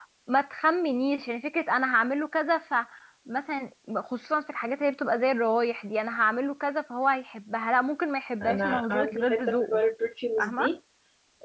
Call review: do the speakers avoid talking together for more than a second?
No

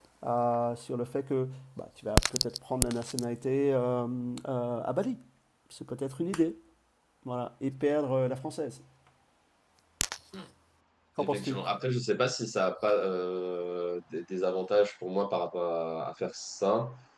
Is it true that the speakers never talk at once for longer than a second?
Yes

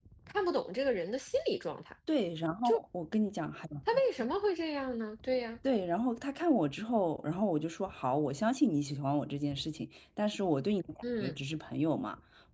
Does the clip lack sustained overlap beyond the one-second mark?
Yes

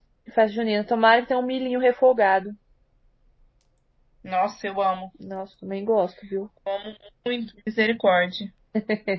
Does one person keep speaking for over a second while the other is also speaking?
No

